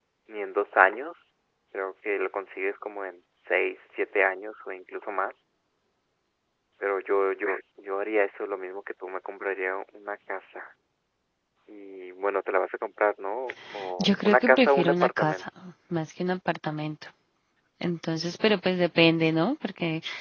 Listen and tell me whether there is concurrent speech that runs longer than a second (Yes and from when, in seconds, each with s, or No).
Yes, from 14.0 s